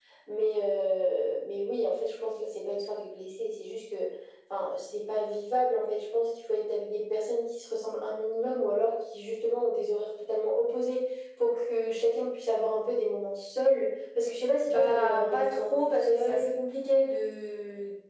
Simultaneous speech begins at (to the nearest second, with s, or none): 15 s